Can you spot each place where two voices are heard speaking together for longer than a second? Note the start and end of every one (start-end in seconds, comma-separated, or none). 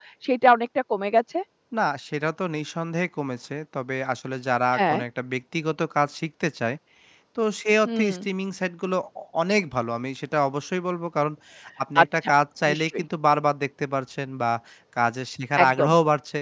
none